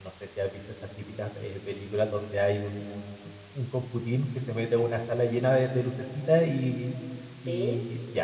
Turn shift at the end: No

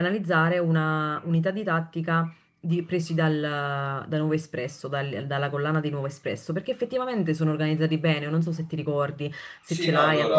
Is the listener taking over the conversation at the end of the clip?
Yes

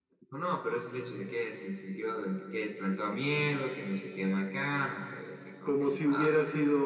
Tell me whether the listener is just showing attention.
No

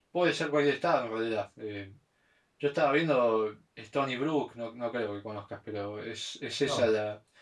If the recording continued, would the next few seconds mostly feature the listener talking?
No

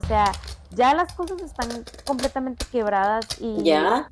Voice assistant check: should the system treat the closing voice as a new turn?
Yes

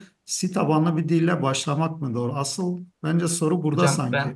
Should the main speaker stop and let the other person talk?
Yes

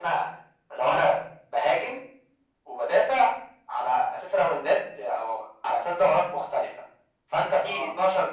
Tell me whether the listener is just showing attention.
Yes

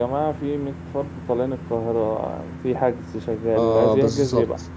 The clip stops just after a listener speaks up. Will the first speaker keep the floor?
No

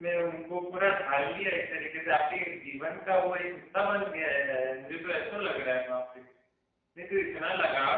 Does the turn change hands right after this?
No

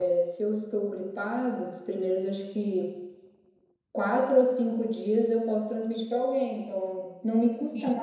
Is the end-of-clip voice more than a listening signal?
No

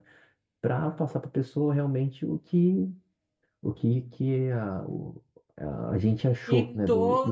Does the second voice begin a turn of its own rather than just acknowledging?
Yes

